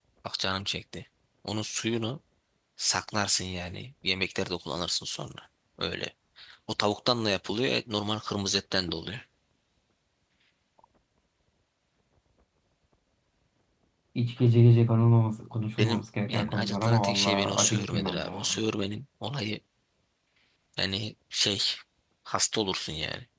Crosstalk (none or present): present